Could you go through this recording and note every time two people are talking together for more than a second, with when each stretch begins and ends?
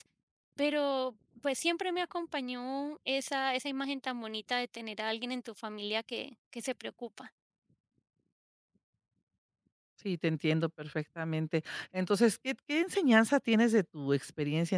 none

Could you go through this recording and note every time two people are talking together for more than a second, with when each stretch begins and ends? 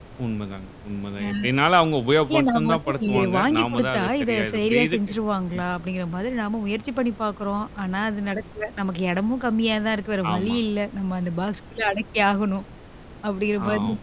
2.3-5.1

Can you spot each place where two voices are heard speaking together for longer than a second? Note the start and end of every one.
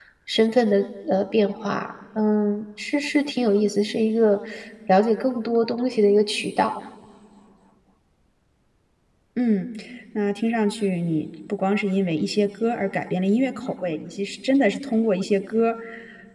none

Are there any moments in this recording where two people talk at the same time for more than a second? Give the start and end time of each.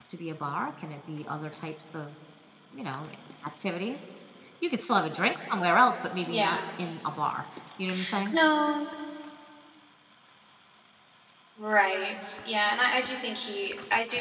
none

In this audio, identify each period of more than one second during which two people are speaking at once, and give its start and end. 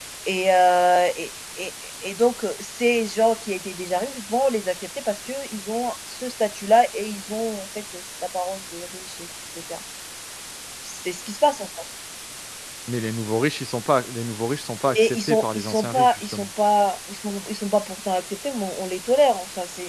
14.9-16.5

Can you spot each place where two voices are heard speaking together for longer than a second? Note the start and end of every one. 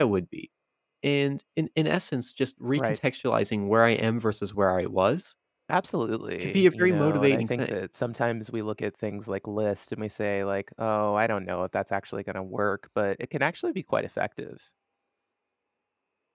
6.4-7.7

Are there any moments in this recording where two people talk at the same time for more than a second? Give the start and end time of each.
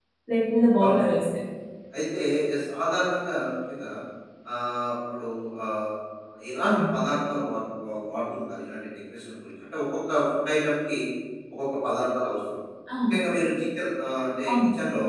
none

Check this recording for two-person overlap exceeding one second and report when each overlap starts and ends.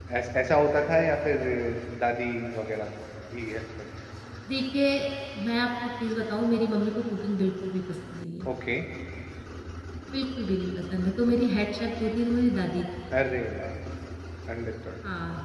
none

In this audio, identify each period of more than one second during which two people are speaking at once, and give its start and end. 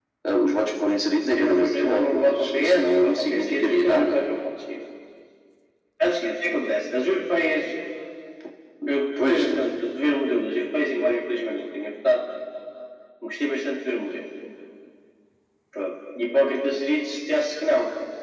1.4-4.2

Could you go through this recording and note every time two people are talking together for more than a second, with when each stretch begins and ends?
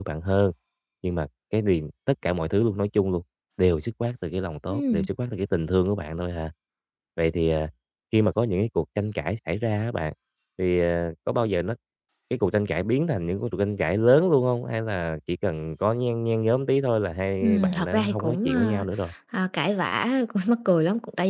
17.4-18.8

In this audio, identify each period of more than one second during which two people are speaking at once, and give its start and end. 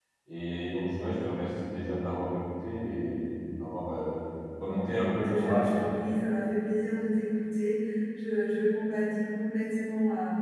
4.6-5.9

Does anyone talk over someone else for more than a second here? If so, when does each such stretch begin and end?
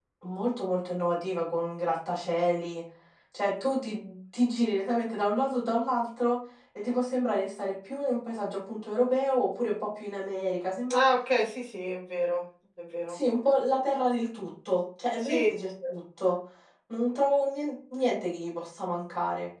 none

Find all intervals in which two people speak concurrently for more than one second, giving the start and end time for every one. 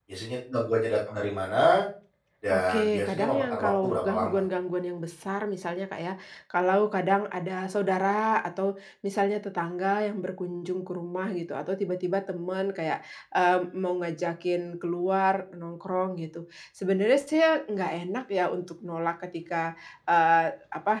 2.5-4.4

